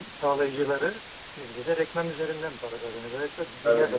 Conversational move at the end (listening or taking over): listening